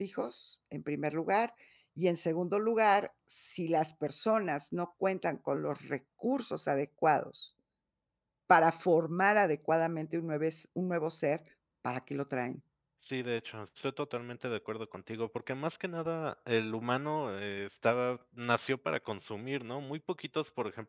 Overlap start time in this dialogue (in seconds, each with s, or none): none